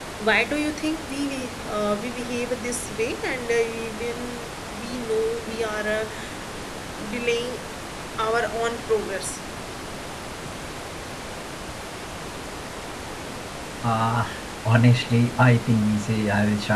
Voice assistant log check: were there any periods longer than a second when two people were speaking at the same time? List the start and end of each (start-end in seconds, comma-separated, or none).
none